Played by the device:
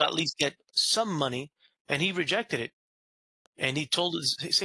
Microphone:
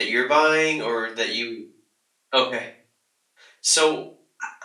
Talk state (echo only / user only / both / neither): user only